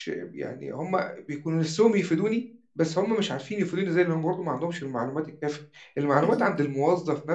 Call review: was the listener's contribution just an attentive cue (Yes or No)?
Yes